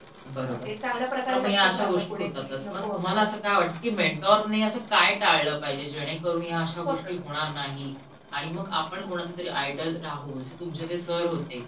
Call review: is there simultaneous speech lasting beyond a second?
Yes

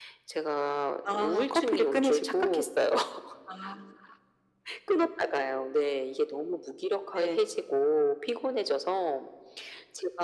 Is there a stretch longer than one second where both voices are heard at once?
Yes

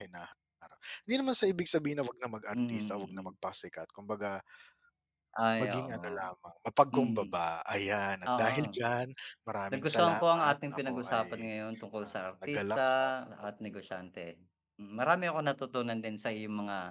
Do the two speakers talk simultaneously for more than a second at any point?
Yes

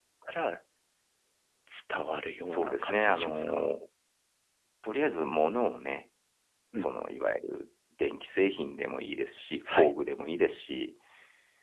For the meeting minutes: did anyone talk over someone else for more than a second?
Yes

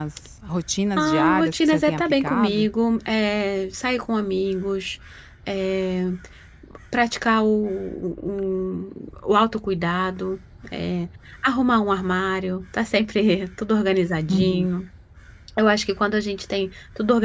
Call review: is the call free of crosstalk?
No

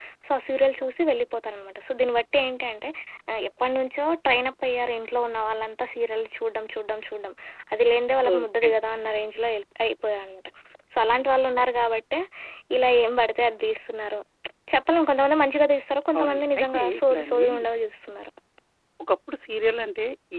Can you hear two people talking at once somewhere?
Yes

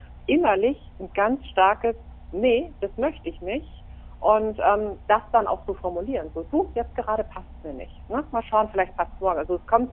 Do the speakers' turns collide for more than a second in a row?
No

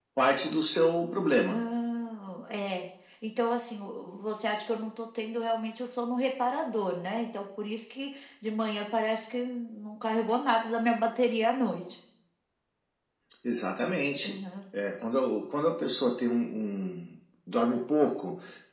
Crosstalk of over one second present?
No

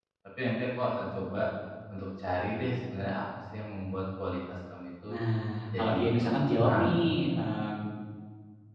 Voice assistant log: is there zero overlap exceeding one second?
No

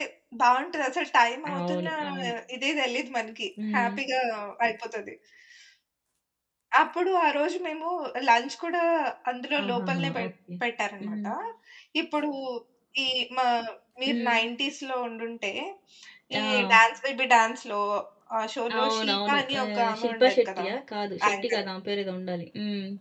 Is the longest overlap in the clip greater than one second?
Yes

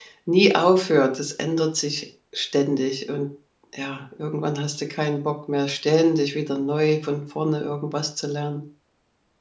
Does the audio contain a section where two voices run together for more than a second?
No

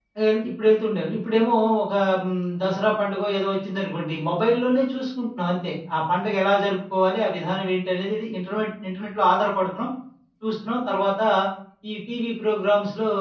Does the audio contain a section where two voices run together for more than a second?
No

